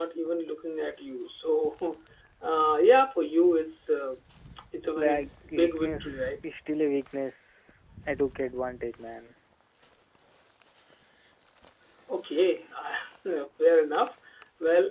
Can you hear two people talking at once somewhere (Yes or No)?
Yes